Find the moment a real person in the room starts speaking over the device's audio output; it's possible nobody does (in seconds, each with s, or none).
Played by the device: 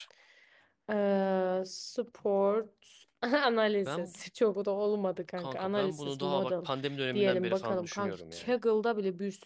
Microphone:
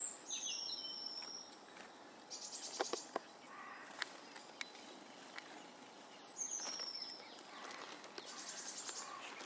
none